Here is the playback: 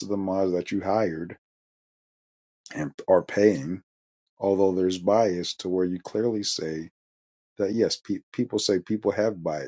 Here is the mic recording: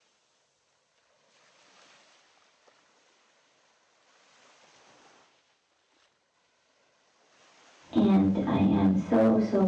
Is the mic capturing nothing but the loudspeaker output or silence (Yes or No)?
No